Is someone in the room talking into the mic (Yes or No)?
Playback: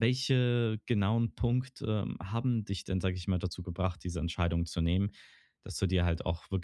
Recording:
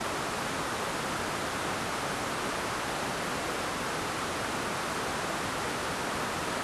No